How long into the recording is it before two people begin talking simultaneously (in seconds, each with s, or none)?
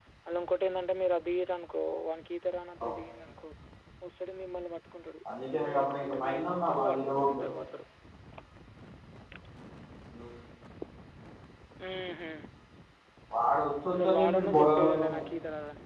5.5 s